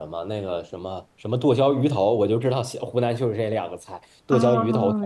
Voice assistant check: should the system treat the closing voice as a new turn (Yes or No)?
Yes